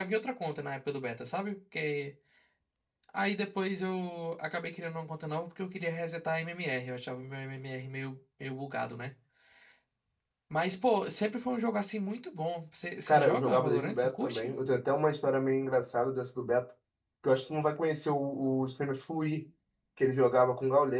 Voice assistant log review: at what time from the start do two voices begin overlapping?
13 s

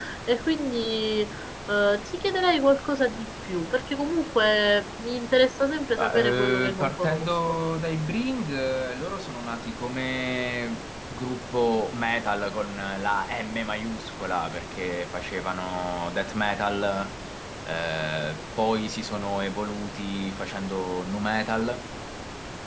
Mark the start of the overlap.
6 s

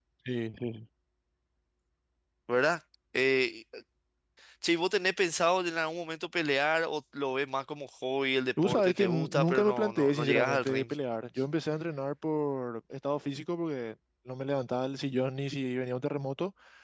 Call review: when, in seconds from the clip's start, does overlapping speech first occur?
9 s

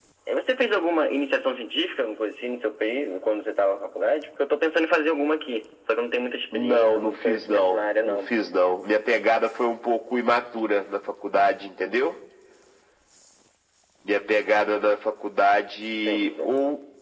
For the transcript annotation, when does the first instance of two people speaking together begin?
7 s

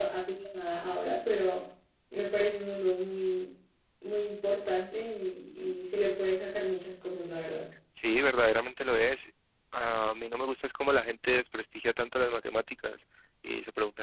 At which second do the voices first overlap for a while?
none

